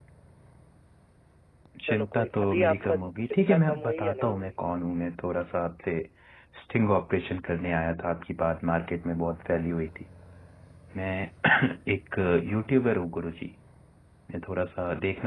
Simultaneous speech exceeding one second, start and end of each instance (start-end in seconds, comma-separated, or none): 1.9-4.5